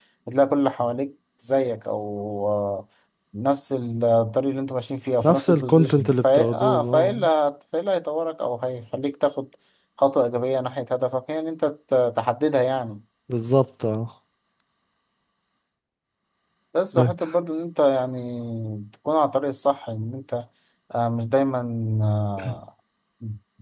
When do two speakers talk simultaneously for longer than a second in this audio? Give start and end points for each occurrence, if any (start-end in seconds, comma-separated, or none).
5.2-7.2